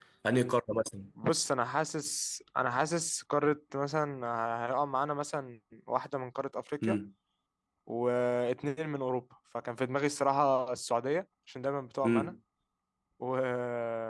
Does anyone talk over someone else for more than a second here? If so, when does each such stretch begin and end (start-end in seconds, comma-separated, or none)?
none